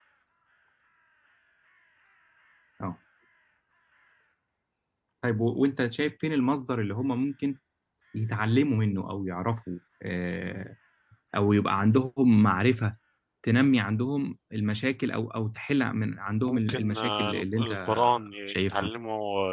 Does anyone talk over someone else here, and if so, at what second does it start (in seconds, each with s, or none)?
16.5 s